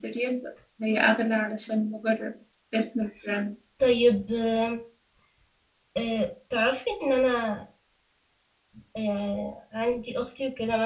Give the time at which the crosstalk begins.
none

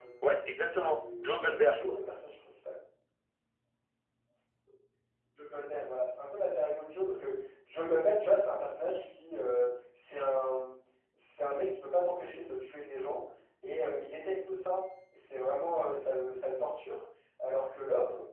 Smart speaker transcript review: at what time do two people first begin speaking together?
0.5 s

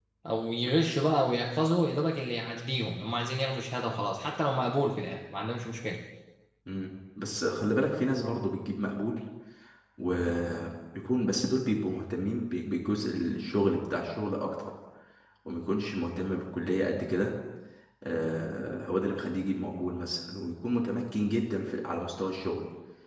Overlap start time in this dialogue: none

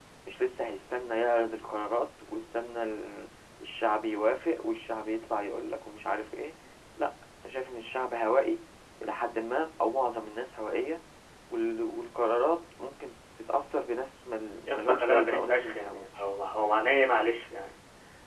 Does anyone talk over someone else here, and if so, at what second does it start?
14.7 s

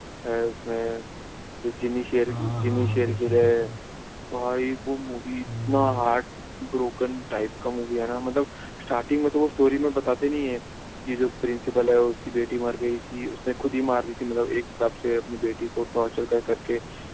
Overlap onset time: 2.3 s

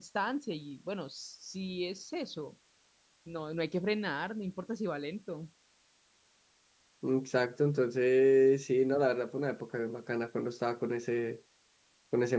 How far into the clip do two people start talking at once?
none

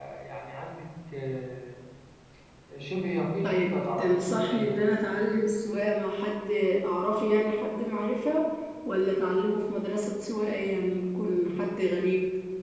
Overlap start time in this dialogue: 3.4 s

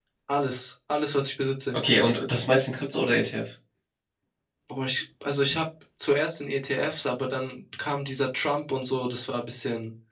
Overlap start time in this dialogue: none

